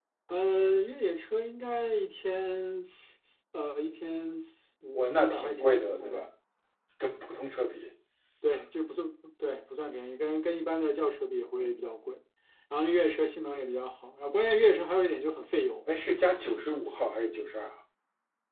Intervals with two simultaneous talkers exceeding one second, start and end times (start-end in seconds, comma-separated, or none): 4.9-6.3